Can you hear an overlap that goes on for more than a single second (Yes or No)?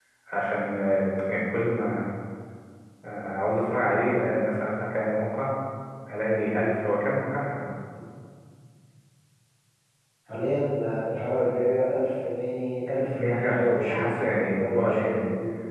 Yes